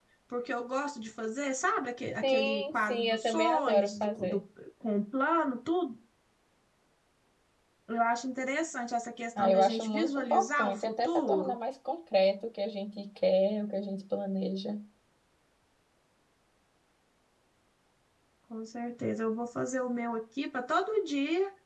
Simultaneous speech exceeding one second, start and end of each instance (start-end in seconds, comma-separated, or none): 2.2-4.4, 9.4-11.6